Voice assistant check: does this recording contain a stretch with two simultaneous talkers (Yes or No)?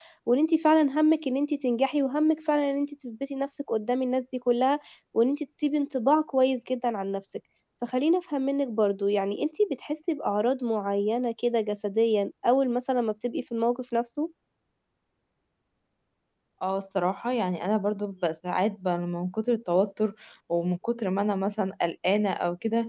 No